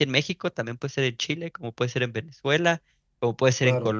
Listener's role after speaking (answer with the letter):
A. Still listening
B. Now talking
A